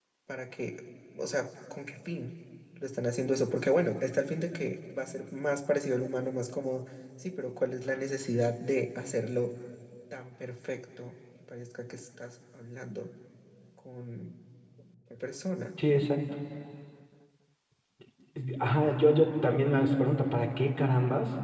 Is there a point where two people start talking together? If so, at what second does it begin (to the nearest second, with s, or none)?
none